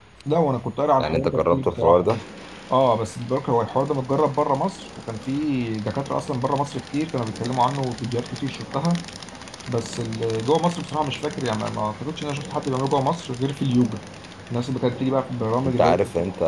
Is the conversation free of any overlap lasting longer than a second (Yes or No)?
No